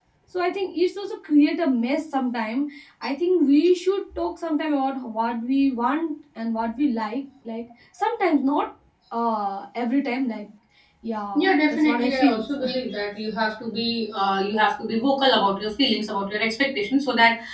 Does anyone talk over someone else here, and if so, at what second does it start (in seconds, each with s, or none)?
11.3 s